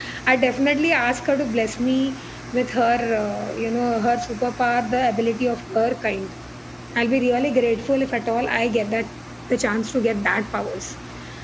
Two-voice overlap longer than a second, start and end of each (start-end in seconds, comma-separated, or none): none